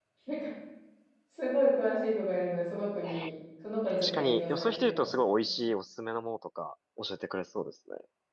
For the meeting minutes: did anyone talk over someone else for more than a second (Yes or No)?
Yes